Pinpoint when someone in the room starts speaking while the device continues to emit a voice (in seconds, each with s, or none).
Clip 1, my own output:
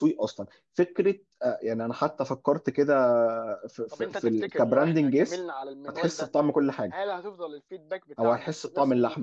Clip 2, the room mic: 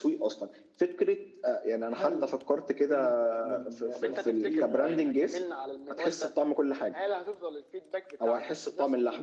1.9 s